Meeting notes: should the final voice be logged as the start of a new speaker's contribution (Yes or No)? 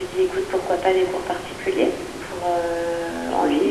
No